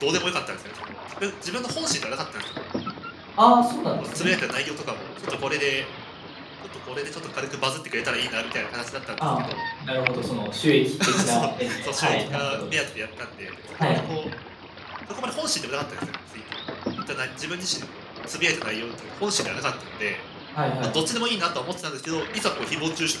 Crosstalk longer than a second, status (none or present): present